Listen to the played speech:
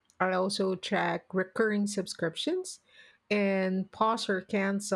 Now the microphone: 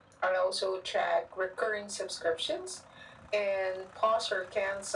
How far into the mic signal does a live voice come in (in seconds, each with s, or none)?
none